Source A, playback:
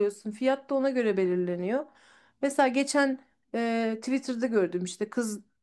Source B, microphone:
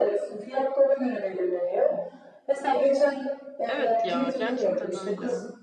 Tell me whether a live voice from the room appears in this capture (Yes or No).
Yes